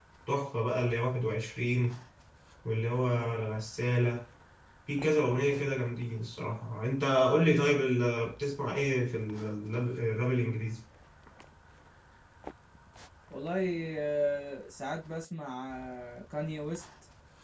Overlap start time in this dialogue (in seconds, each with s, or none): none